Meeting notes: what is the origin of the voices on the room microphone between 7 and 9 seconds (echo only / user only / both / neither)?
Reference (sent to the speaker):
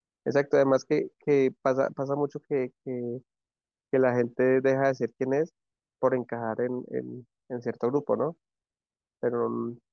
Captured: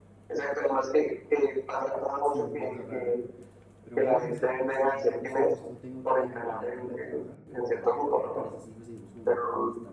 both